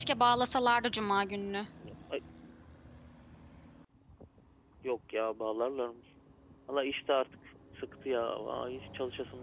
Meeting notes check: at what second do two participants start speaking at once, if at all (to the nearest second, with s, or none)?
none